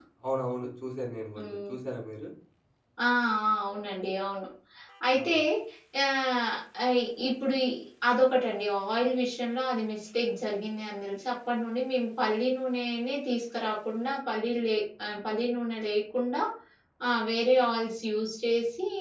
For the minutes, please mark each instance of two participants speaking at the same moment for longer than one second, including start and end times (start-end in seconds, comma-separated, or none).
none